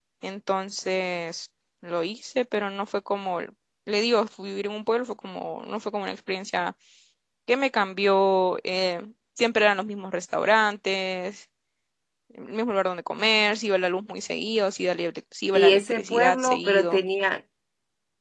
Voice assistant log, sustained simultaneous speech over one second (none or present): present